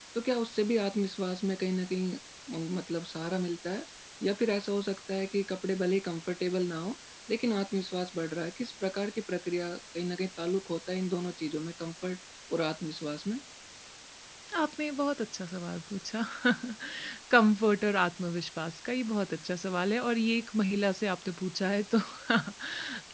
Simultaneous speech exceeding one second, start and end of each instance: none

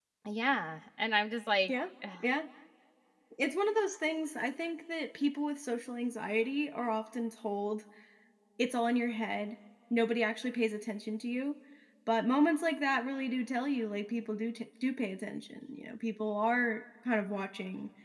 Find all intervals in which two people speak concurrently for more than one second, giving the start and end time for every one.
none

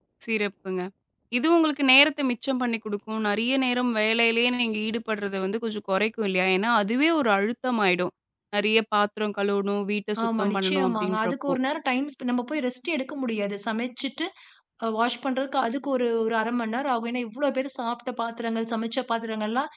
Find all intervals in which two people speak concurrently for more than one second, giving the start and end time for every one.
10.2-11.6

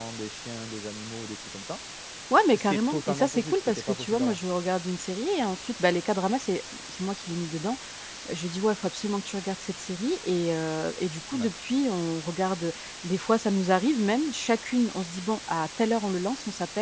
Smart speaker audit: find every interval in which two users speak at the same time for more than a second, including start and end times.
2.5-4.4

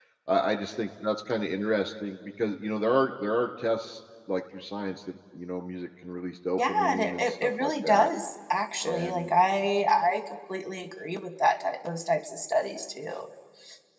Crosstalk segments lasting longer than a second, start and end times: 6.6-8.1

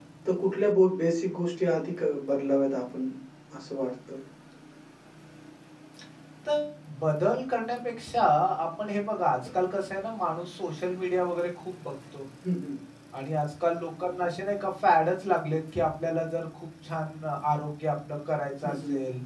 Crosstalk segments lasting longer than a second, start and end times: none

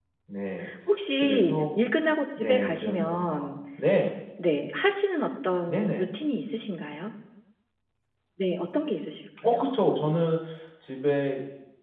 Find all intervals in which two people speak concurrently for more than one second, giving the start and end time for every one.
2.4-3.6

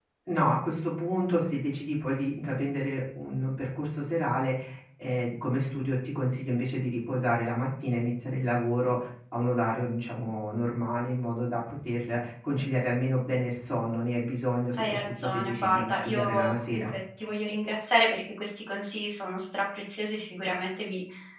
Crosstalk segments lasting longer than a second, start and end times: 14.8-16.9

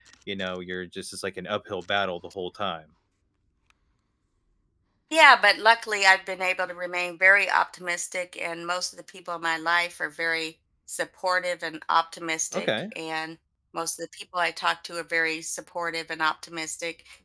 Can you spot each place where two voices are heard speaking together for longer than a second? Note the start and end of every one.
none

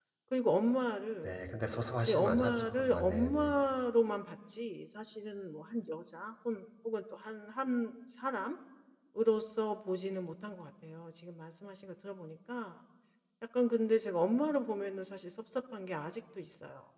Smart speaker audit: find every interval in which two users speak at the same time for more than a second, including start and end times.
2.0-3.6

